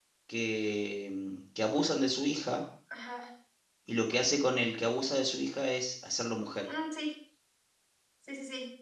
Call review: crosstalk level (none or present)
none